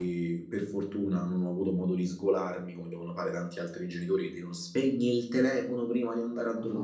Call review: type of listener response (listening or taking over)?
taking over